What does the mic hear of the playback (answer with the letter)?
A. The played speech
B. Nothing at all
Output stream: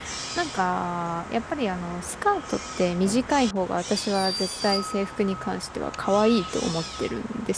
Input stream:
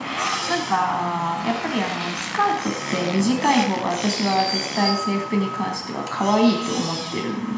A